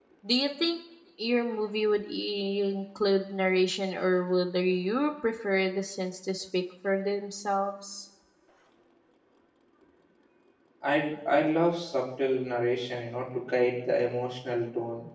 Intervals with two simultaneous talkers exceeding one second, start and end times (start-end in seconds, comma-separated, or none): none